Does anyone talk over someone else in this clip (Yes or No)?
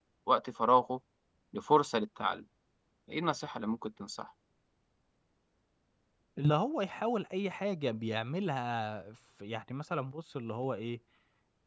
No